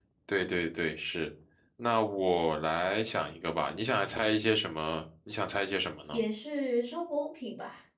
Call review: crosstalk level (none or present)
none